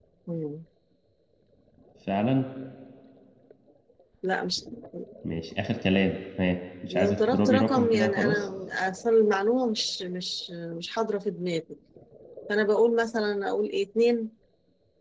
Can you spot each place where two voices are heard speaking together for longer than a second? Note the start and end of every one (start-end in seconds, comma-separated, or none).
6.9-8.4